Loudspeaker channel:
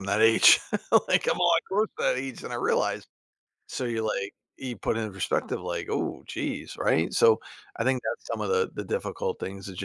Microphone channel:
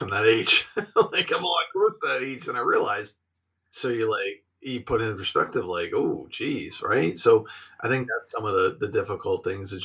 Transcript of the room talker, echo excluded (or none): none